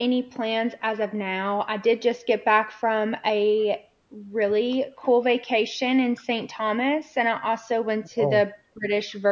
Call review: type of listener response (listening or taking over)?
listening